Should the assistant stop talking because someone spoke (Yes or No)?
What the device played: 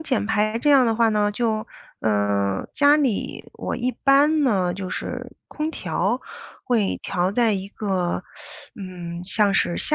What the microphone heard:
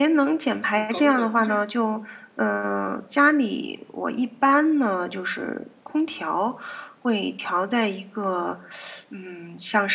Yes